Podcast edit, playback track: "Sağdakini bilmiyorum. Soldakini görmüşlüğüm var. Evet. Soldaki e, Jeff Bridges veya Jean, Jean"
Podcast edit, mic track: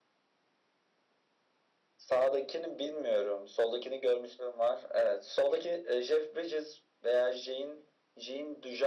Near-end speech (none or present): none